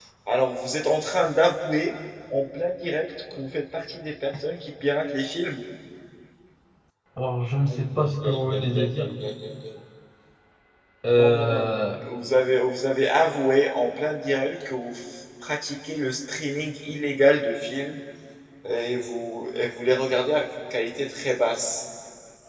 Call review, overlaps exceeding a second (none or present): present